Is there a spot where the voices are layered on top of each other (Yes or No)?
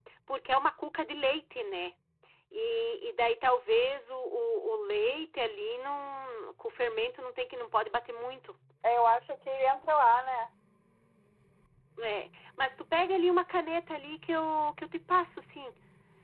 No